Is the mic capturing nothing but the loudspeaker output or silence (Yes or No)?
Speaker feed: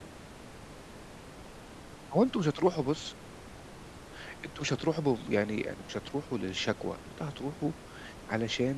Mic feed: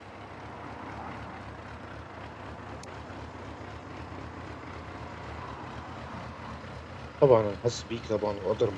No